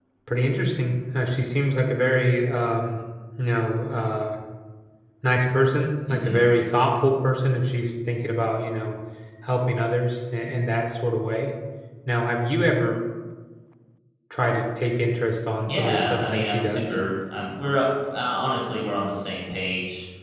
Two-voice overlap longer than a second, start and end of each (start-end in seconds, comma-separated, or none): 15.7-17.0